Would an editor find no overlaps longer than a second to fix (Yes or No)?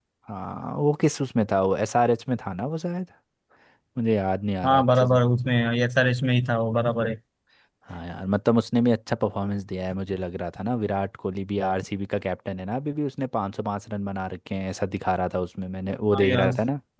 Yes